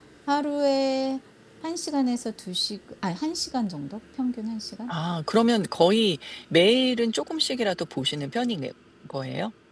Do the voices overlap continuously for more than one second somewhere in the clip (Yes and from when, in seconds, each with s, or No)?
No